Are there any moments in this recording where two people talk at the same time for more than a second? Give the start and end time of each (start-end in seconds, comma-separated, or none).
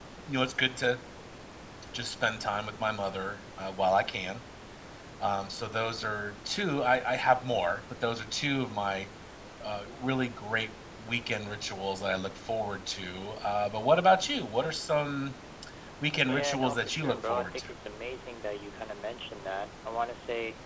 16.3-17.7